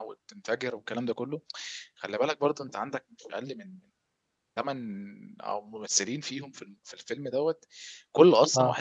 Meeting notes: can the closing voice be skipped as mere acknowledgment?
Yes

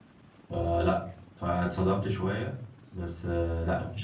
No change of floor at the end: Yes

